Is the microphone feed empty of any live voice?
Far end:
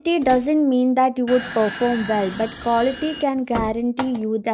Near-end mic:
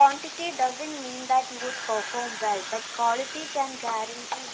Yes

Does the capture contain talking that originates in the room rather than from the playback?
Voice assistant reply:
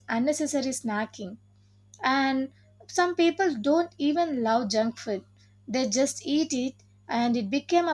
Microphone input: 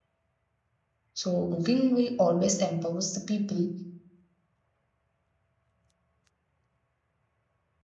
Yes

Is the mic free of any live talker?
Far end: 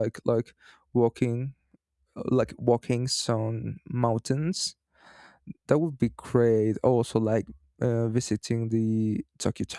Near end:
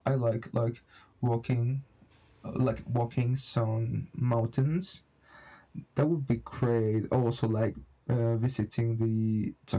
Yes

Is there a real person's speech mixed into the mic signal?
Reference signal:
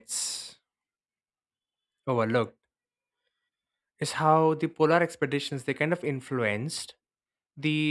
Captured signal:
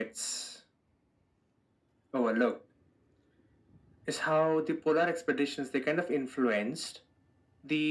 No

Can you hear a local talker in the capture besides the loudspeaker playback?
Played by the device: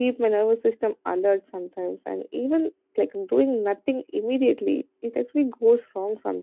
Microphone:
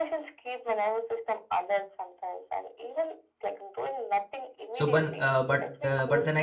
Yes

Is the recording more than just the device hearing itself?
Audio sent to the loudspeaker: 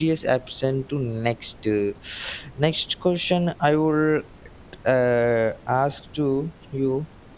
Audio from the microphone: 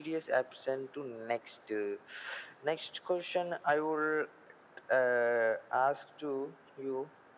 No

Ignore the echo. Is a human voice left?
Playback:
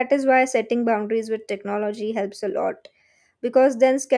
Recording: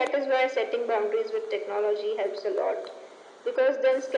No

